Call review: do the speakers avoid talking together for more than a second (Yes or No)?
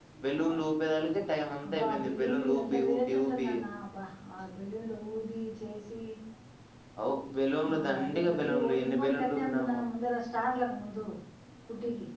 No